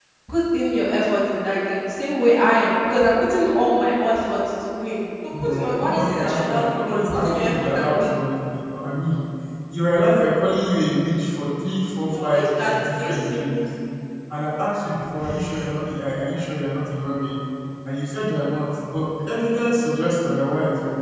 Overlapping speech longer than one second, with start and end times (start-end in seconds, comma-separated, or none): 5.3-8.2, 12.1-13.7